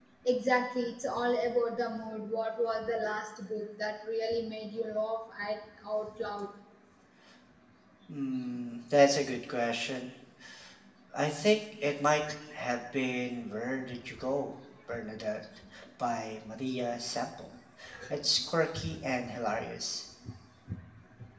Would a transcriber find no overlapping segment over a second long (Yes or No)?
Yes